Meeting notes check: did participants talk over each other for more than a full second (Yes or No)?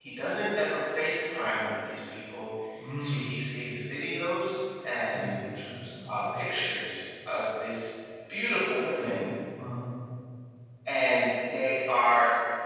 No